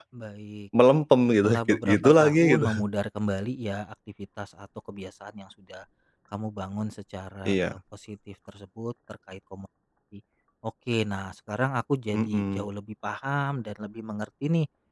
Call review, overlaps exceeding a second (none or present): present